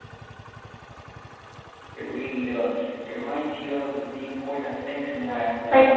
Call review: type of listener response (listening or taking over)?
taking over